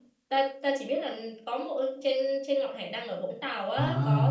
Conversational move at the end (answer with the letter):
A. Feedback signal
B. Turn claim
B